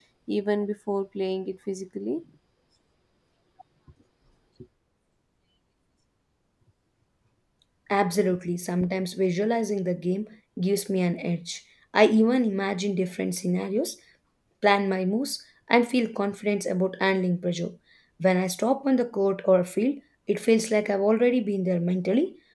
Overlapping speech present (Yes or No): No